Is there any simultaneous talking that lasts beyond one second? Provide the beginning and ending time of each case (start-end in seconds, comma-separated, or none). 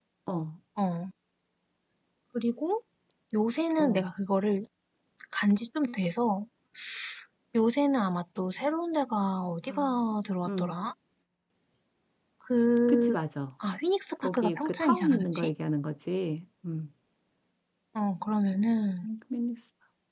14.2-15.5